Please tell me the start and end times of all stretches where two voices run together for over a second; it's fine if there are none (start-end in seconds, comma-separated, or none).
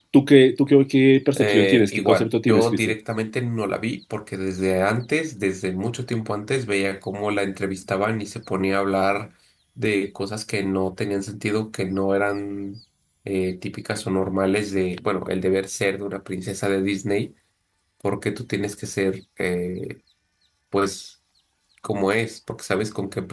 1.4-2.9